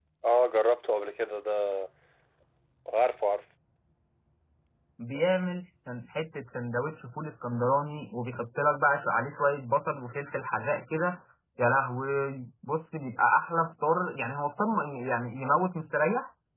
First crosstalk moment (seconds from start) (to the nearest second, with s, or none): none